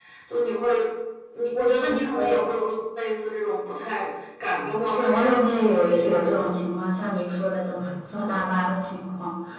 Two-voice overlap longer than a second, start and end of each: 4.8-6.5

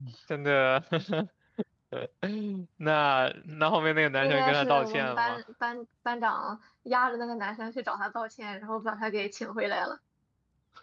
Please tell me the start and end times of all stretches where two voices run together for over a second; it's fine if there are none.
4.2-5.4

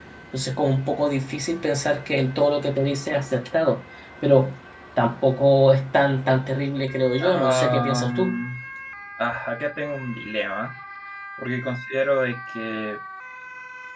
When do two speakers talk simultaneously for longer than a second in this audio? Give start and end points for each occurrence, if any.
7.2-8.4

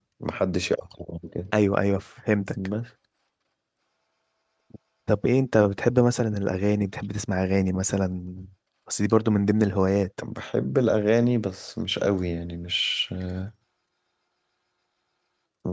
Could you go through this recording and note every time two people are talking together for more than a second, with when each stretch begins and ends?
none

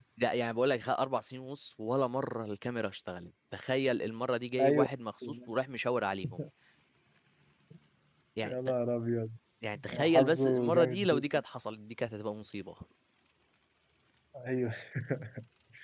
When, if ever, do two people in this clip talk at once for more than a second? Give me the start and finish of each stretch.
9.9-11.2

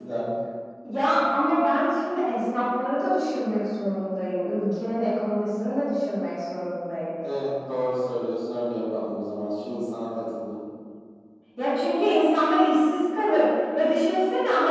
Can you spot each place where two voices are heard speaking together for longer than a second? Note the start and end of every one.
none

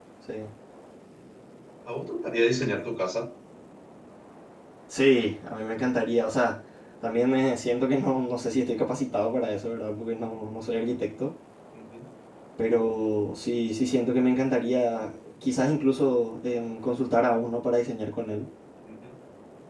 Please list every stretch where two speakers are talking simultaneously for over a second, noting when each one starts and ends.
none

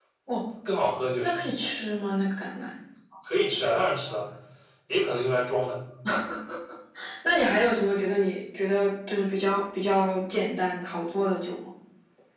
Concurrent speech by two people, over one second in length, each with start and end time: none

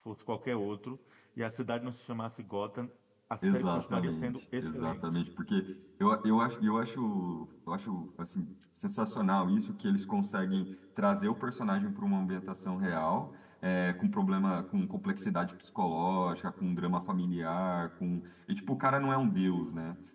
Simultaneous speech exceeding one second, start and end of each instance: 3.4-5.0

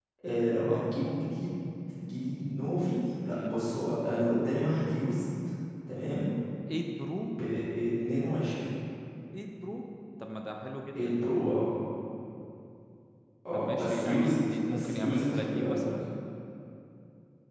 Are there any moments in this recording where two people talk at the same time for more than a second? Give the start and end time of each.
13.5-15.8

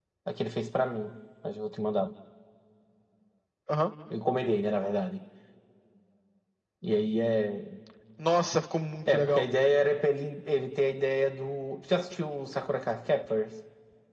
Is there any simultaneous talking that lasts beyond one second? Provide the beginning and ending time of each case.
none

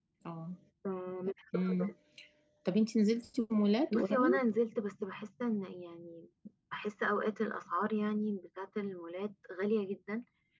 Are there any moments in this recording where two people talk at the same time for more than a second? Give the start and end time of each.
none

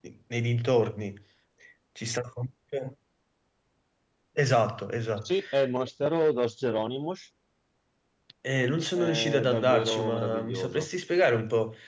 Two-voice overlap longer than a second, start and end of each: 8.9-10.9

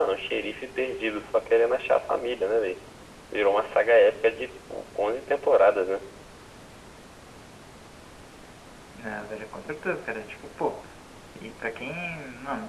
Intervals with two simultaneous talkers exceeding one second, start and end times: none

